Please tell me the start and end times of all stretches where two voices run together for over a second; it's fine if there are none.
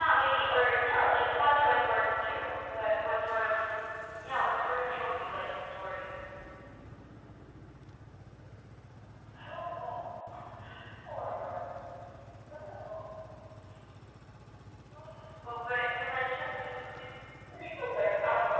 none

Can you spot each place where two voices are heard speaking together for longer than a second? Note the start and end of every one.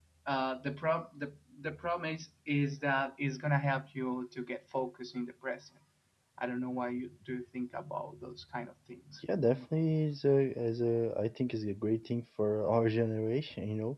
none

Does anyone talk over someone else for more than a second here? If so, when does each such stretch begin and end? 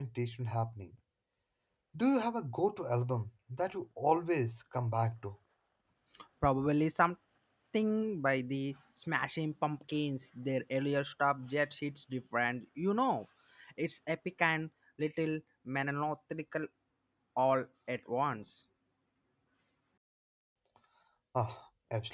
none

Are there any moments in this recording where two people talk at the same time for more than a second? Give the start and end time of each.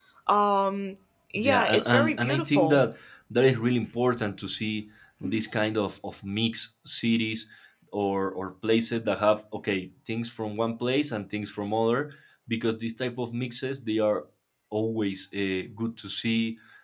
1.4-2.8

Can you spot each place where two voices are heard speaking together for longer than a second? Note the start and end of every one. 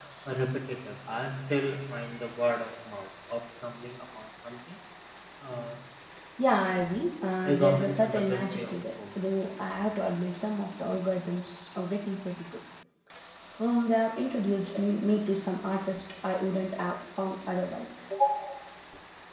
7.4-9.0

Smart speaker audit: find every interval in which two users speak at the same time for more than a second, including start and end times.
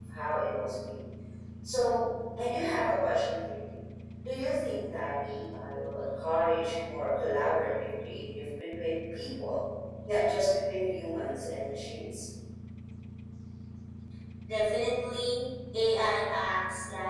none

